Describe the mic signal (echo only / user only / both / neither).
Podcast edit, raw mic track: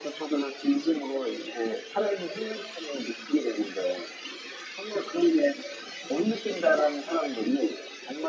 echo only